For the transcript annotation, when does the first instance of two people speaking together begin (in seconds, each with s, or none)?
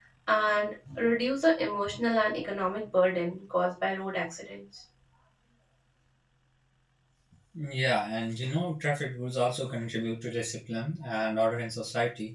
none